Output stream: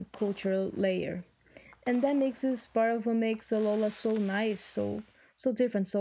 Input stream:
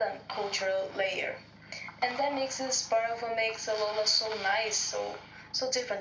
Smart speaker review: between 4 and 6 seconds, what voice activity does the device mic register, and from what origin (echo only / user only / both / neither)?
echo only